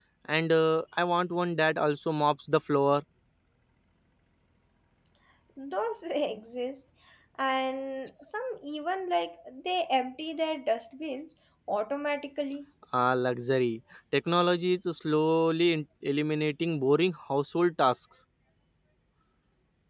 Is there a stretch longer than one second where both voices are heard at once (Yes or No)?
No